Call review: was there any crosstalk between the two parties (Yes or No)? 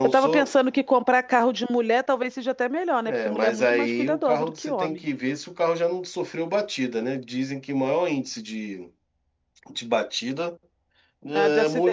Yes